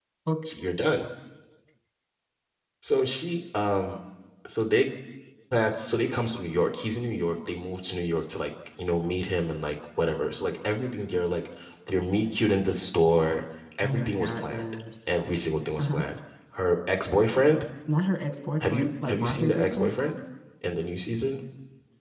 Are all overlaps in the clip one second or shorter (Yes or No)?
No